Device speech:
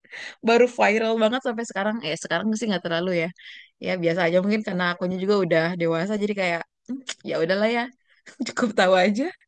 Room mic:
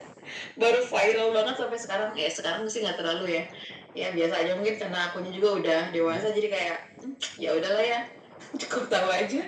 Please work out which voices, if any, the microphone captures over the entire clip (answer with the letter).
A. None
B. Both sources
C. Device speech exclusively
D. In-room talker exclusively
B